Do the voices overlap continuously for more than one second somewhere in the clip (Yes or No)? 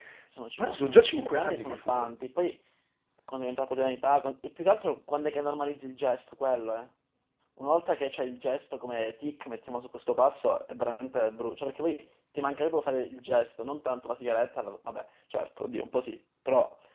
Yes